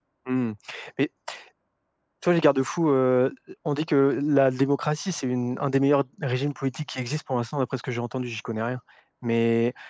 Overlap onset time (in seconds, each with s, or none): none